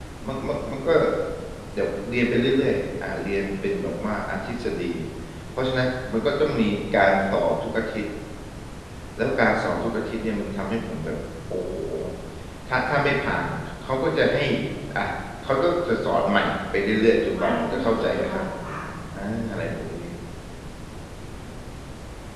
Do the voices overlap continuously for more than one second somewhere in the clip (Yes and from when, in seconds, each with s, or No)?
Yes, from 17.2 s